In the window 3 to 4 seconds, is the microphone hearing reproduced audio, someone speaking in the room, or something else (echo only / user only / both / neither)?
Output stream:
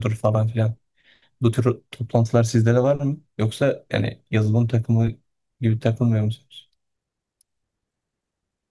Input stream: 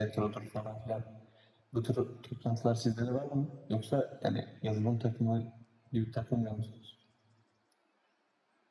echo only